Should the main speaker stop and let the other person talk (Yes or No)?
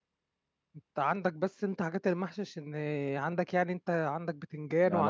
Yes